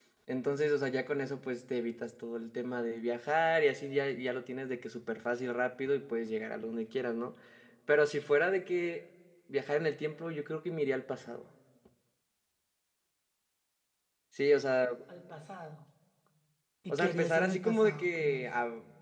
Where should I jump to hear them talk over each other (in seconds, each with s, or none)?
16.9 s